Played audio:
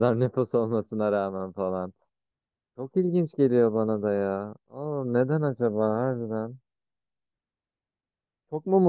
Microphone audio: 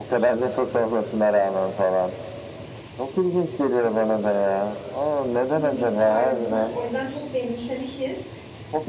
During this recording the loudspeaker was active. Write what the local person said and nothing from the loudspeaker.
müzik tarzını o yüzden çok benimsemişiz.

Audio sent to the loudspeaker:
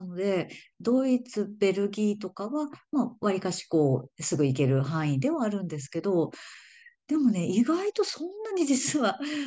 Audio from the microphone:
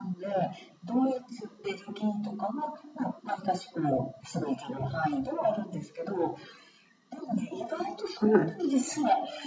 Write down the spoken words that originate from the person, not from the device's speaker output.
はい。

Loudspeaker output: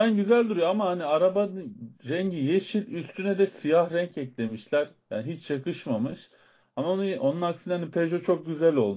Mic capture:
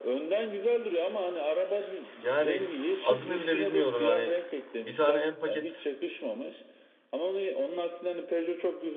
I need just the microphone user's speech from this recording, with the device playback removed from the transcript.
Yani adını bile bilmiyorum yani. Bir tane en paket

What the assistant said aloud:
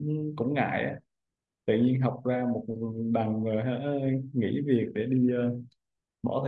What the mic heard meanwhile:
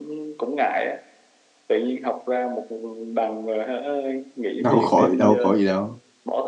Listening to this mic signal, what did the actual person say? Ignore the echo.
đâu khỏi đâu khỏi gì đâu

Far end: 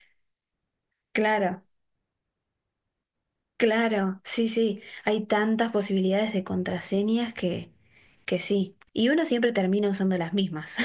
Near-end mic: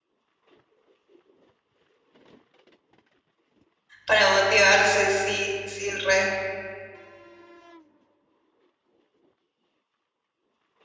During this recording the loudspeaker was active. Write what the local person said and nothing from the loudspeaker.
Para motivarse, sí, sí, re.

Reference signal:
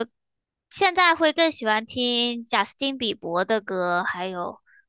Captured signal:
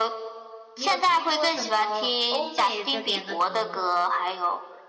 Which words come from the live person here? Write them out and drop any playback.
你有听过什么欧美这边的歌吗？

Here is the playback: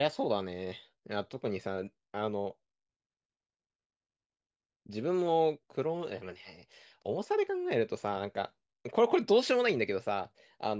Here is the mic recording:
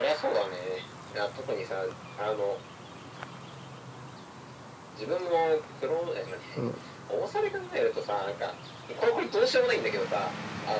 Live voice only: そ

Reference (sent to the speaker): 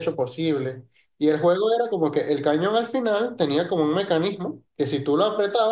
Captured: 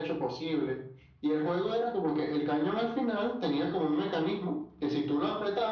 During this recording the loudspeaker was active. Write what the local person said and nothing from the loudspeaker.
none

